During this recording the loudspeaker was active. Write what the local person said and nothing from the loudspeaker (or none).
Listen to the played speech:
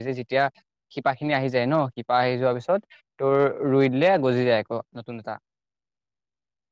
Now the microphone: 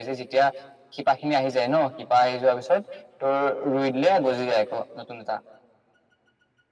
none